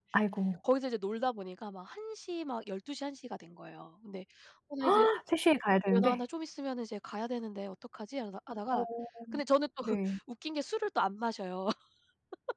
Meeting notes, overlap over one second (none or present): none